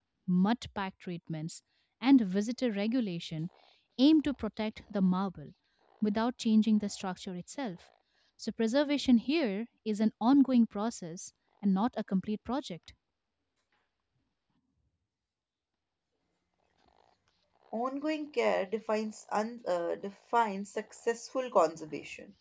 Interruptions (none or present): none